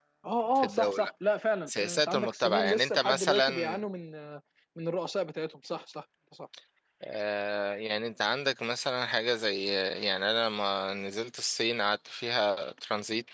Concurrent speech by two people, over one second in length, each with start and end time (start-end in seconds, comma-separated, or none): 1.7-3.8